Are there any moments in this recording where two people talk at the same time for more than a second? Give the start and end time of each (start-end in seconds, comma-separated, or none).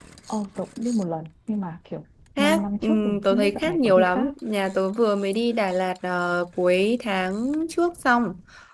2.4-4.3